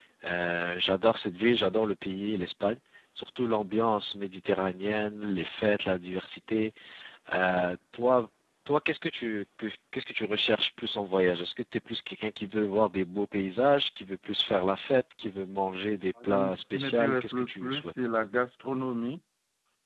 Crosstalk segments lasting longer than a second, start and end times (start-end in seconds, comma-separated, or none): 16.2-17.9